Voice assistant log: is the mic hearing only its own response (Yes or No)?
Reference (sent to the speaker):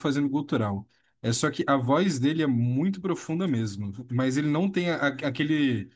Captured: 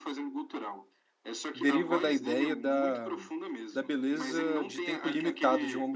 No